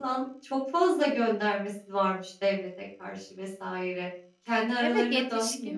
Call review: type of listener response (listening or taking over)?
taking over